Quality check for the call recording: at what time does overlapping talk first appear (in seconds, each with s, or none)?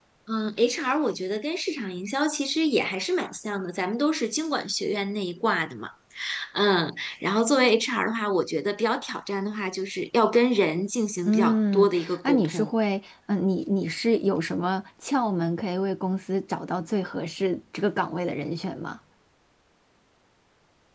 11.2 s